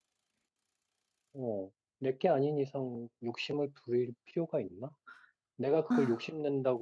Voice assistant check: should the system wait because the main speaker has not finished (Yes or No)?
Yes